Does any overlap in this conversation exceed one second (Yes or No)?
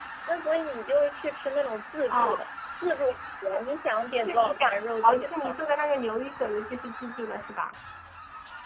Yes